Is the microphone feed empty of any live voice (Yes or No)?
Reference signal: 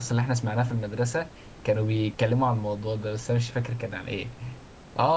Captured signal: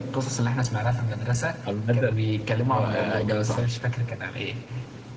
No